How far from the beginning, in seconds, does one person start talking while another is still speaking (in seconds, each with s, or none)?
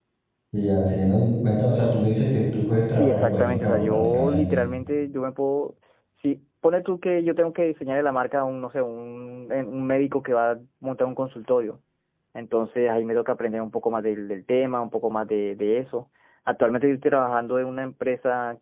2.9 s